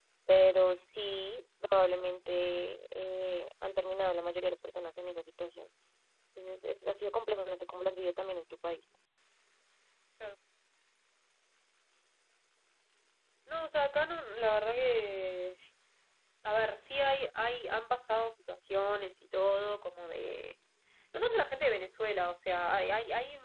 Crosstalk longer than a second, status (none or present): none